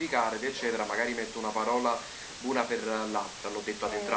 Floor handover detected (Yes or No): Yes